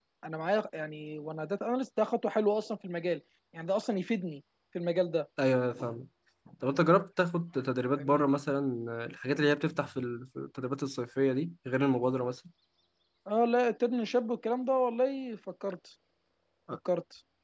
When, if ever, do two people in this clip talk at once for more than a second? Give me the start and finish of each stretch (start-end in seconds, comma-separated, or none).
none